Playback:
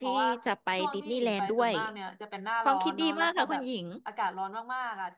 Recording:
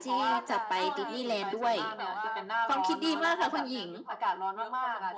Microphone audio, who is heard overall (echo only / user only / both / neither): both